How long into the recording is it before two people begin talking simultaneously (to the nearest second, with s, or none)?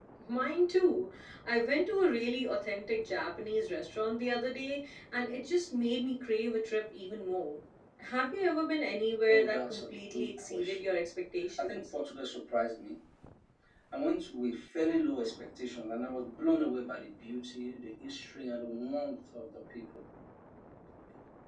9 s